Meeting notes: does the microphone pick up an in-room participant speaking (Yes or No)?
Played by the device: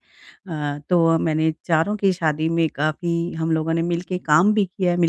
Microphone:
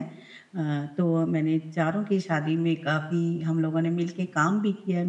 No